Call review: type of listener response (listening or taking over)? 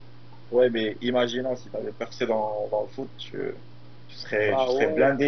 listening